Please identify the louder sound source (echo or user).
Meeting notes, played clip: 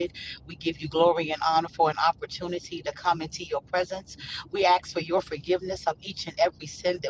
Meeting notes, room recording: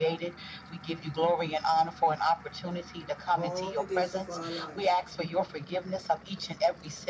echo